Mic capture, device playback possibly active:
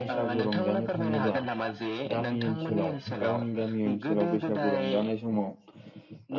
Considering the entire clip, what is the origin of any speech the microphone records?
both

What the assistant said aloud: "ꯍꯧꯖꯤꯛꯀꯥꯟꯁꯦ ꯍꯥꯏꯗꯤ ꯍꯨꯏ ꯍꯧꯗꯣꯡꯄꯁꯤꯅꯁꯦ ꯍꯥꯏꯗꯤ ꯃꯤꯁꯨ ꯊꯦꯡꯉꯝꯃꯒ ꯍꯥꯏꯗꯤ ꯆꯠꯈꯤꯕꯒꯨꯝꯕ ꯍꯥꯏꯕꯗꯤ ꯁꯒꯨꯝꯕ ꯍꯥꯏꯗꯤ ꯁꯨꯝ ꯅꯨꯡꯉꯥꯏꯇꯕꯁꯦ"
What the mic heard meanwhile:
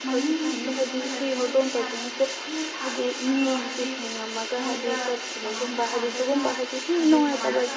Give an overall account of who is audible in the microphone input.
both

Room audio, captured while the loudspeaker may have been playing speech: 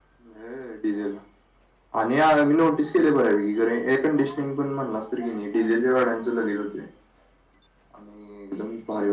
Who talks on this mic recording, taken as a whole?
echo only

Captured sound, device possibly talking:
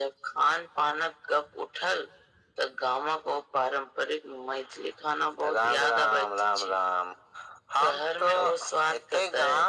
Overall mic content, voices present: echo only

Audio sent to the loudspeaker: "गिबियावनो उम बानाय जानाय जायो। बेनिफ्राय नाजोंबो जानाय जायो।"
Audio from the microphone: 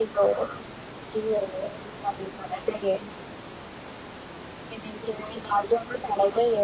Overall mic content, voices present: echo only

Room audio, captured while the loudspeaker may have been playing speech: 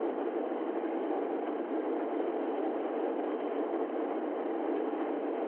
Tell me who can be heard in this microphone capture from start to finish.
neither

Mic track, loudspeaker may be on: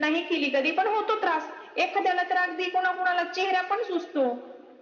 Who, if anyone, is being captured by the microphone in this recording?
echo only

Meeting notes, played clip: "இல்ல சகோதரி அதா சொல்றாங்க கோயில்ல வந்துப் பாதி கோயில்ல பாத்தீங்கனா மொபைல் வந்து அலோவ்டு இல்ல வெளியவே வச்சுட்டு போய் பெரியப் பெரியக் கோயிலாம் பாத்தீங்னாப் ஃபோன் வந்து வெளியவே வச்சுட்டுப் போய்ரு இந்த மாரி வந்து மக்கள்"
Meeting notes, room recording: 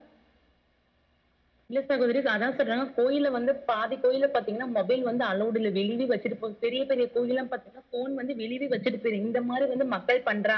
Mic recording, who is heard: echo only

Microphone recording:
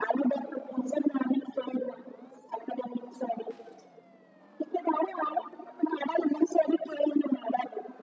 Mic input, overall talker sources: echo only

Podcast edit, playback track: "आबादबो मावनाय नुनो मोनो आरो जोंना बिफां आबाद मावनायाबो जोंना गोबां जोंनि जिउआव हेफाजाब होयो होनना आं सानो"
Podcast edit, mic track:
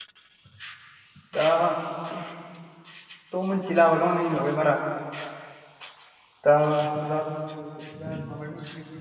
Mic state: user only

